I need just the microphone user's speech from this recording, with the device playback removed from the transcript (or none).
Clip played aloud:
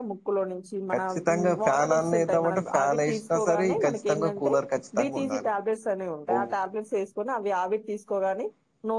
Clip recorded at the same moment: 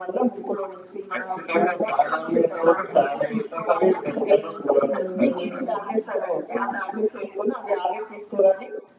హ్మ్.